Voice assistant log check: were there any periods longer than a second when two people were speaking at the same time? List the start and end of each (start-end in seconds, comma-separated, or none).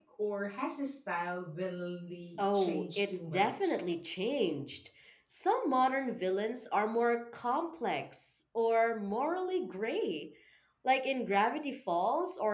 2.5-3.8